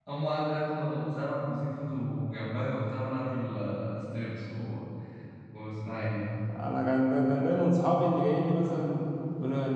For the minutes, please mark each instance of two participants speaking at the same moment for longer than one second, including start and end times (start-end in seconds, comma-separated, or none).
none